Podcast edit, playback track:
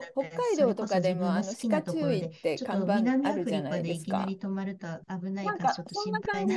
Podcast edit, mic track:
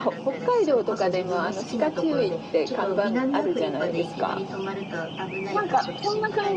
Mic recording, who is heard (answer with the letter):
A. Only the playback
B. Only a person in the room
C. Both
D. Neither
A